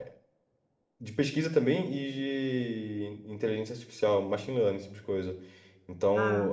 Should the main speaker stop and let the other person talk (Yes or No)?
No